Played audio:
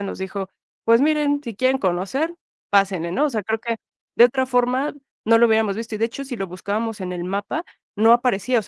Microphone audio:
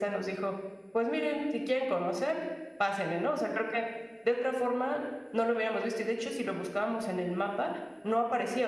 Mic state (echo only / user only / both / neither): echo only